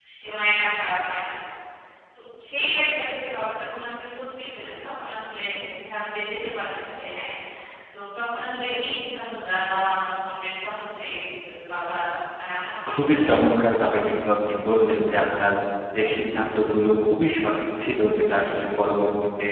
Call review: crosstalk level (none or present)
present